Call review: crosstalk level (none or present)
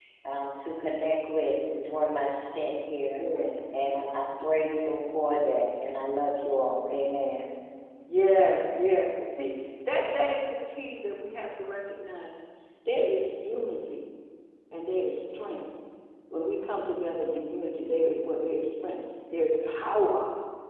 none